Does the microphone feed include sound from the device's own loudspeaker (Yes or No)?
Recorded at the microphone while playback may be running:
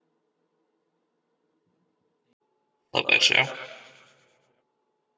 No